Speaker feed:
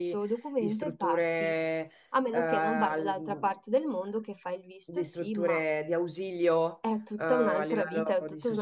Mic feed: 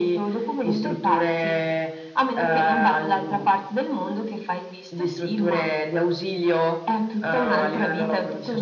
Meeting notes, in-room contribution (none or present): none